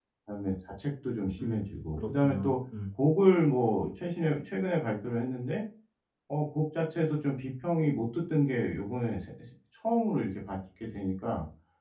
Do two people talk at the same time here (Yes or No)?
Yes